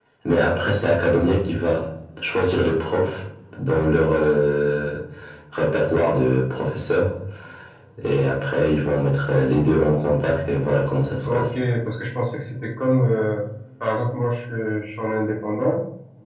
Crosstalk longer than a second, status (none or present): none